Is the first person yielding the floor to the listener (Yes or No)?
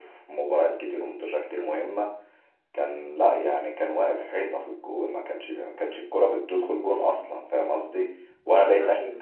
No